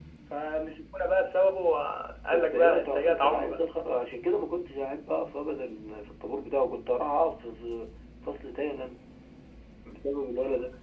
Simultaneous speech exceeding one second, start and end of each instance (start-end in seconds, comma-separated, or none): 2.3-3.6